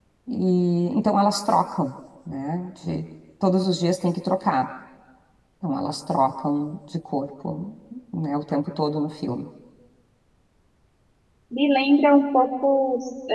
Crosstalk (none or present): none